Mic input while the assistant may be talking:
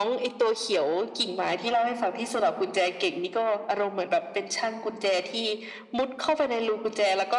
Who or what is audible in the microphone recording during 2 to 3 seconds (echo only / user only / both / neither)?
echo only